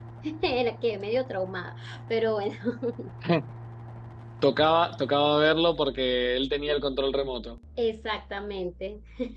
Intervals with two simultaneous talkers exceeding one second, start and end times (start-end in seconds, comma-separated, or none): none